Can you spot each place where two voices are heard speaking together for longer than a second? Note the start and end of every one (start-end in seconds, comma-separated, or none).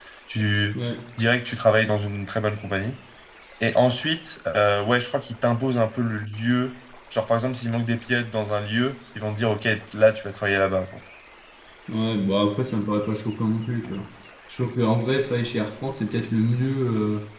none